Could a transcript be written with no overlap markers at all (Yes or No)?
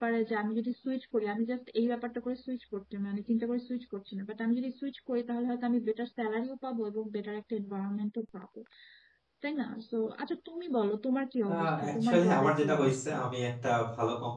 No